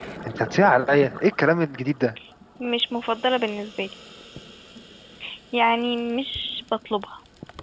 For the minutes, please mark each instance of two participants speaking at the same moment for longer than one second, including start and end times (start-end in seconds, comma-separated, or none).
none